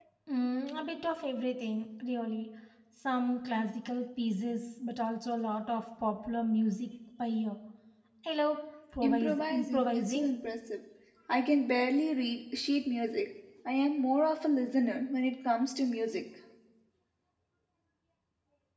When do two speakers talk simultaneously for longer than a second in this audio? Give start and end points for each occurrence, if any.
9.0-10.3

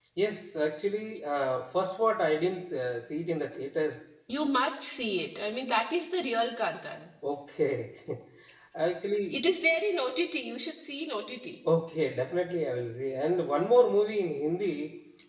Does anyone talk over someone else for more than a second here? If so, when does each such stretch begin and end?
none

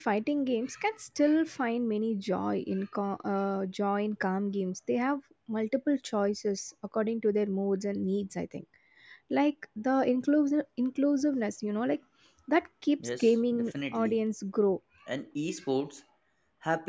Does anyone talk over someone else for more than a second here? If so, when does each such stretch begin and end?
13.0-14.2

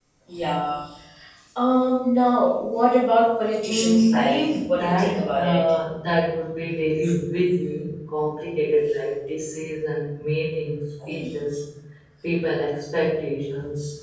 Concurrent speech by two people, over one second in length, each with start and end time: 3.6-5.6

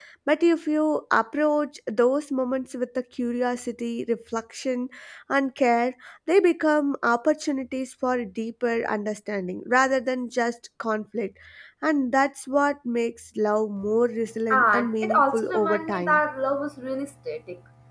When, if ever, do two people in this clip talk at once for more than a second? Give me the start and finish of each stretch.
14.5-16.2

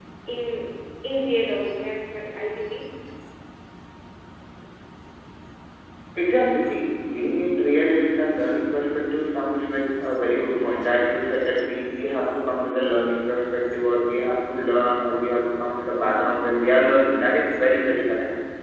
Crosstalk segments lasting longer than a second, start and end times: none

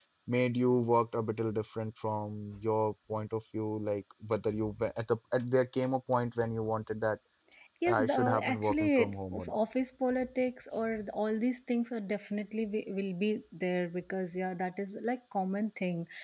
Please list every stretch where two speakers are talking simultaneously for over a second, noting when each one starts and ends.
7.8-9.6

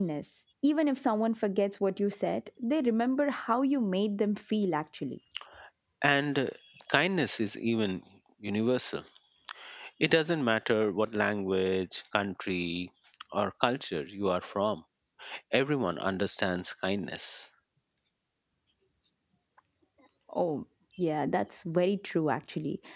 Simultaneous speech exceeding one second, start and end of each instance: none

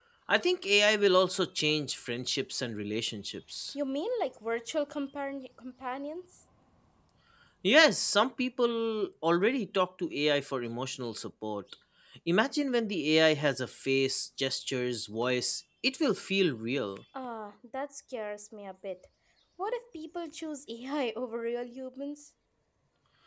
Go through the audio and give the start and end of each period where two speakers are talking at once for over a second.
none

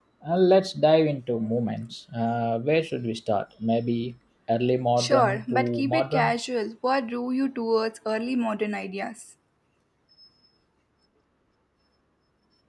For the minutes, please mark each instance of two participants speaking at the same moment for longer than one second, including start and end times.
5.0-6.3

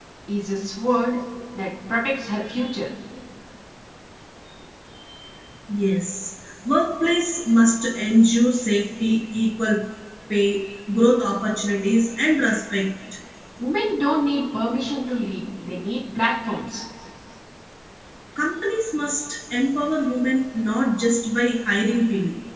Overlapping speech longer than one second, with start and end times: none

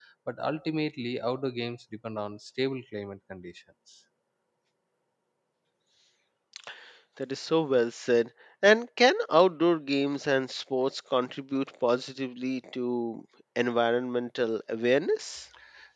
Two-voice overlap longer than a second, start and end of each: none

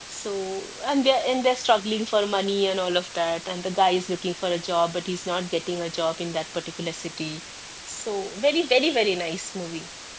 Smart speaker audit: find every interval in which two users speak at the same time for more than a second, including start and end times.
none

